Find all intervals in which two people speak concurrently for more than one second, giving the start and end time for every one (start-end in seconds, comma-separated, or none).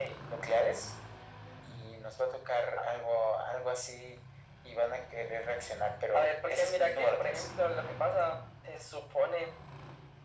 6.1-7.4